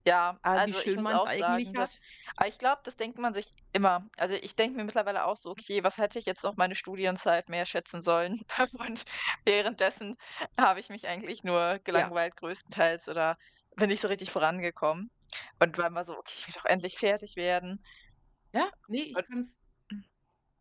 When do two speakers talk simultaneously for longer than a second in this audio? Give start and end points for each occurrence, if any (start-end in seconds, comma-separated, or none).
0.6-1.9